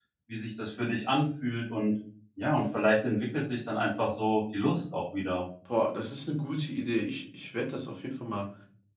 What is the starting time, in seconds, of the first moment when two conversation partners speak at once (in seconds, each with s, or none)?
none